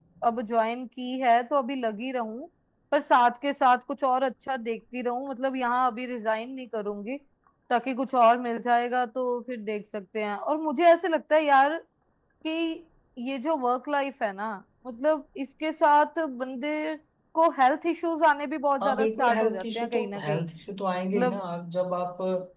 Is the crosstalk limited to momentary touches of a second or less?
No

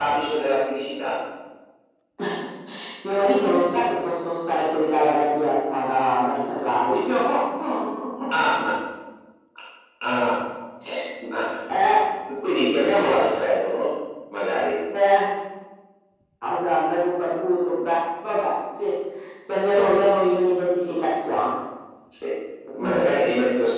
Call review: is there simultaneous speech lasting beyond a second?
No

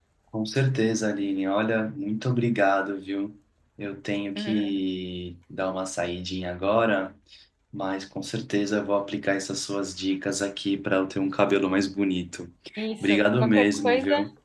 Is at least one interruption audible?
Yes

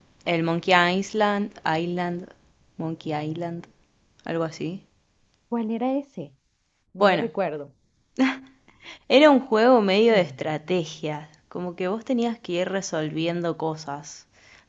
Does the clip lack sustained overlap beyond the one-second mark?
Yes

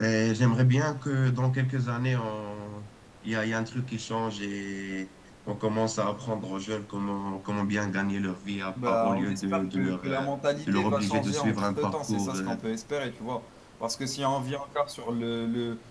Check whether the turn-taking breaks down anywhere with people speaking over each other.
Yes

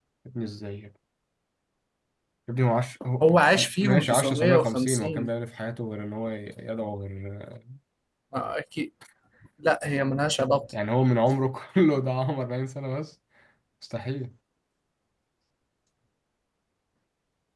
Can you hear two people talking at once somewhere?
Yes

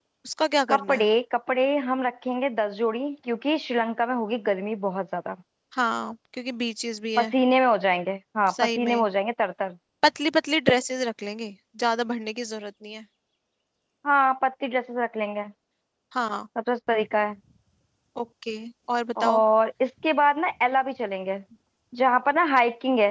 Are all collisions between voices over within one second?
Yes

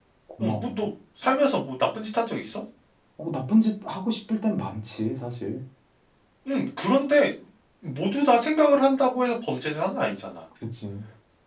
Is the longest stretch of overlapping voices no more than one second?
Yes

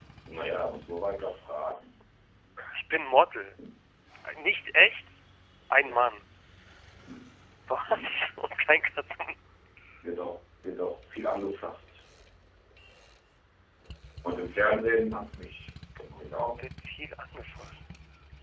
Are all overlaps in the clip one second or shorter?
Yes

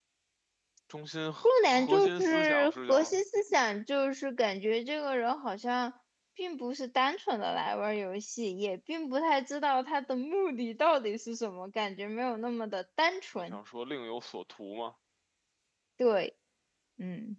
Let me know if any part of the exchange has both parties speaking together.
Yes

